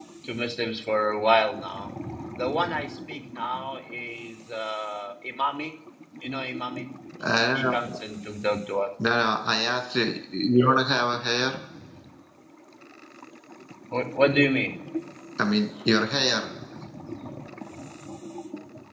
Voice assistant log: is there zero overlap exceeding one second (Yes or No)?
Yes